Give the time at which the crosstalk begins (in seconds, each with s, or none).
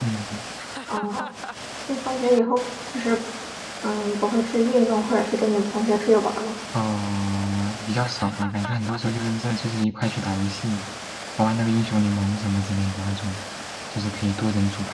none